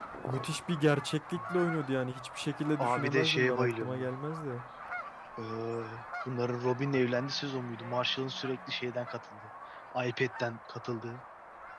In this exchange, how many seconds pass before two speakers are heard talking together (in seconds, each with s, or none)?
2.8 s